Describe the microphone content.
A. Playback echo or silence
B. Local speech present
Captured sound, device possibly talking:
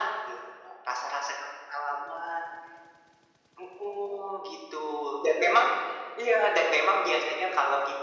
A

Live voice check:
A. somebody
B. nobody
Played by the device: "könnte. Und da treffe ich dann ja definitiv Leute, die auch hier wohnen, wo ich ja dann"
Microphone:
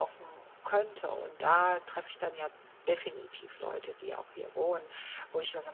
B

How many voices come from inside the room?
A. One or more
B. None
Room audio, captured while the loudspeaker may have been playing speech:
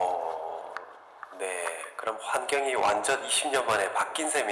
B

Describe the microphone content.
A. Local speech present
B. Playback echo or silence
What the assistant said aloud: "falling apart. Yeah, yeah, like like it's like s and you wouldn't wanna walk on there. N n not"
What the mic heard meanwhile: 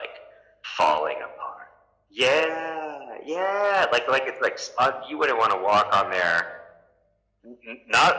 B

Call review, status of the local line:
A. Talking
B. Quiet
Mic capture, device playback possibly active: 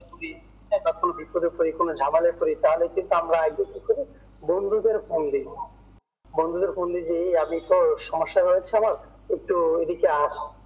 B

